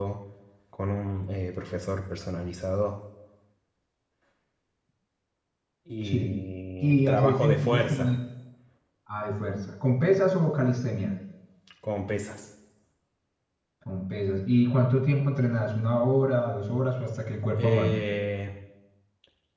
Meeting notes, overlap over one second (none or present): present